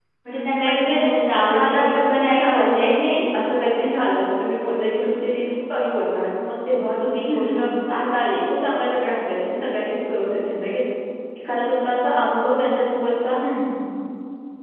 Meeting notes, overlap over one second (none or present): present